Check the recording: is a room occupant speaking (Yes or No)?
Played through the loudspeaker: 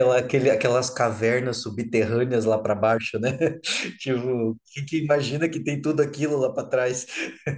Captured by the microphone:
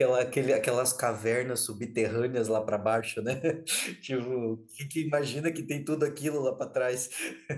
No